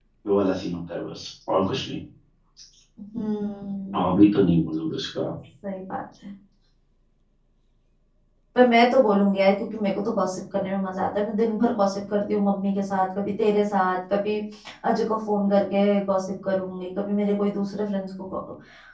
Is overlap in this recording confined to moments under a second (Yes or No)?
Yes